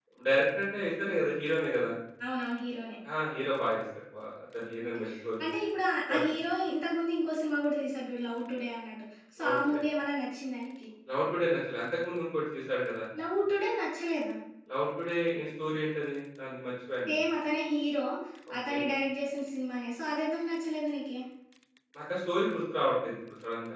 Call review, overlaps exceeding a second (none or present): none